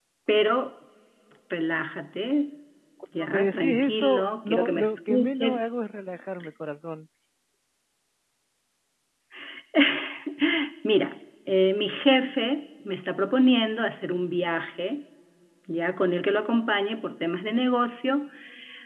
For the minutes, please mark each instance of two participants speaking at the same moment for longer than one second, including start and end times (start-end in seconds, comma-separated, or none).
3.2-5.6